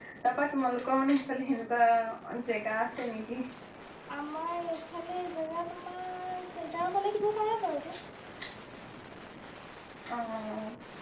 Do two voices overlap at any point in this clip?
No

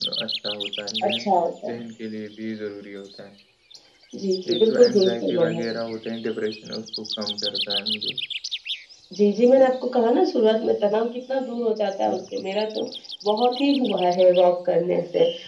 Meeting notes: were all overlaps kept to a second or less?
No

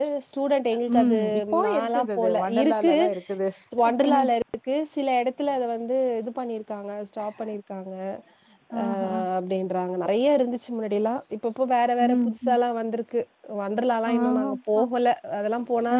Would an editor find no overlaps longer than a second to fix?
No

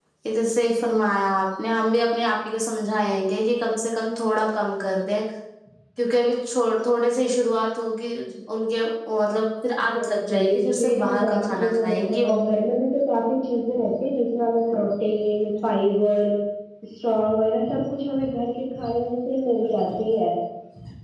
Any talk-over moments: Yes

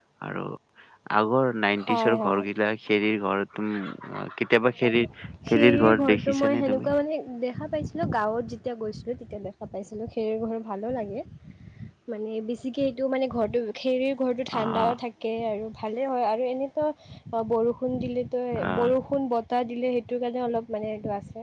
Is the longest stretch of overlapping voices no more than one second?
No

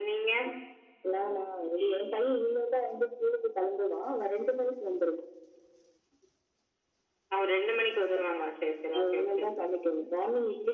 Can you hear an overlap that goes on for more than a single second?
No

